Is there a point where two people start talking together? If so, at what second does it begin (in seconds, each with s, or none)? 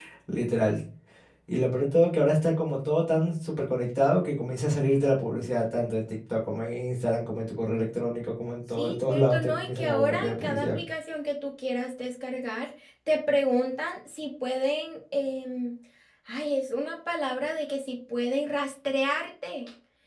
8.8 s